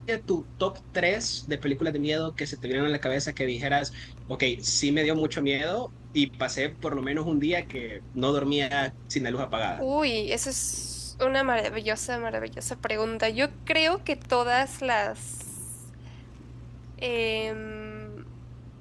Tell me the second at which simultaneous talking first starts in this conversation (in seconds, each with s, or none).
none